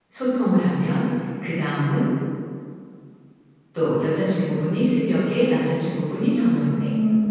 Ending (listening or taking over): listening